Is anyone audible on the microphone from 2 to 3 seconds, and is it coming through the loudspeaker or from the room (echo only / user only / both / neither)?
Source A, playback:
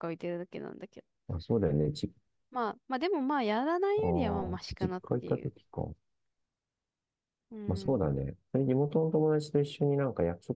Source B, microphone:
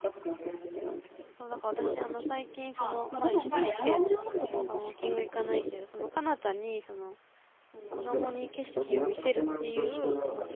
both